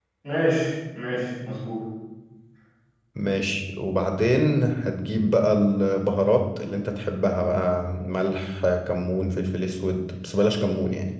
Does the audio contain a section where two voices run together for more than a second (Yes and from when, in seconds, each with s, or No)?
No